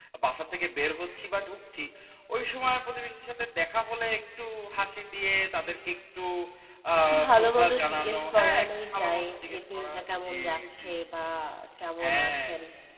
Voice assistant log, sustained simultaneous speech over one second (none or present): present